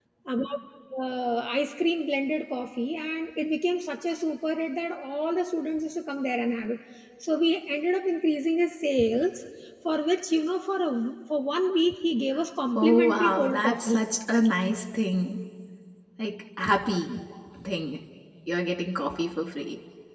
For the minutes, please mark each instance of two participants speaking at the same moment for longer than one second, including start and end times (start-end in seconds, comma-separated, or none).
12.8-14.0